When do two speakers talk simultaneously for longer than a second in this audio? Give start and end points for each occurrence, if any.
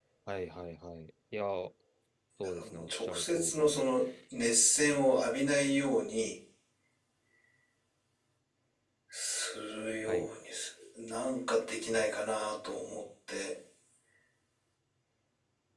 2.6-3.8

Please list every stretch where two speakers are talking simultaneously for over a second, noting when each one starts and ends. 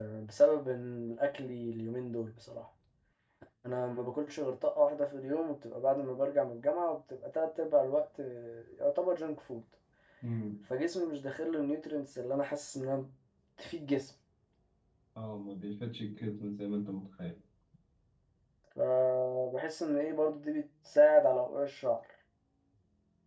none

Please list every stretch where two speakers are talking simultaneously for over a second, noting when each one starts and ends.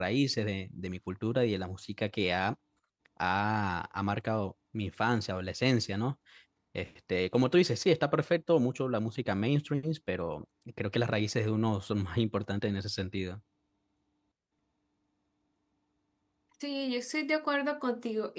none

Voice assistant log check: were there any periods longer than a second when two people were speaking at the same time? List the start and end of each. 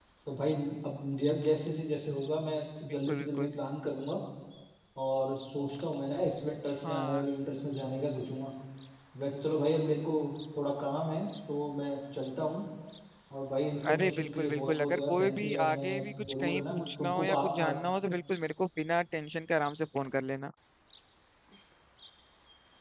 13.9-17.7

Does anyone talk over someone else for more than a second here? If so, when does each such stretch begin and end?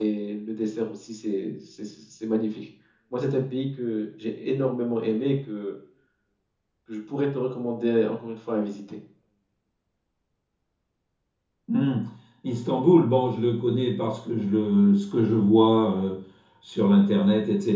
none

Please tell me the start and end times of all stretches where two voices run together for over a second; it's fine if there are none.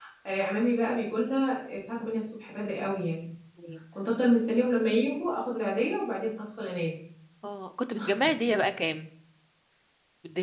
none

